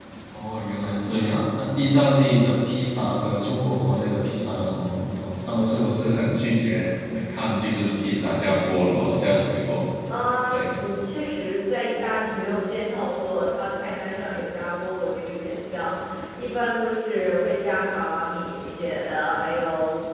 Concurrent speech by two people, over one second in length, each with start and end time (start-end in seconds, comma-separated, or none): none